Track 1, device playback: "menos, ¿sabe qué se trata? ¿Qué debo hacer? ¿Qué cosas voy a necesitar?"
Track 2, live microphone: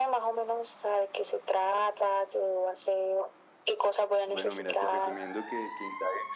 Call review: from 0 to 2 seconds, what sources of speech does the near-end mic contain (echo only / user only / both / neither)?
echo only